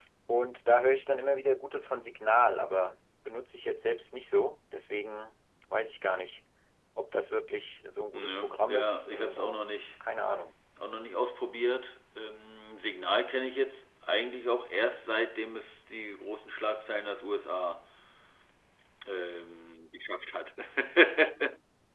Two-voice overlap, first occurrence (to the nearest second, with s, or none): 8 s